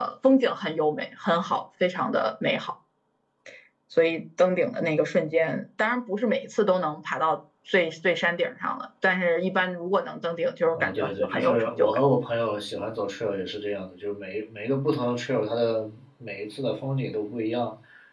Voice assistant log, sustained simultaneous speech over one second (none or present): present